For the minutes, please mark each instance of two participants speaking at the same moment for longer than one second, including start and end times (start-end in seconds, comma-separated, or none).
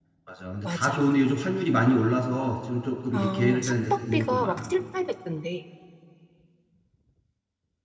3.1-4.7